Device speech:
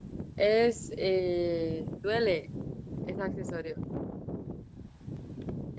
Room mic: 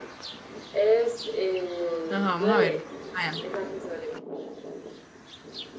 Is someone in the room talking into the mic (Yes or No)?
Yes